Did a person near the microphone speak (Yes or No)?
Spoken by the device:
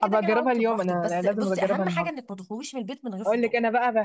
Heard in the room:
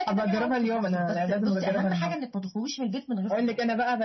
No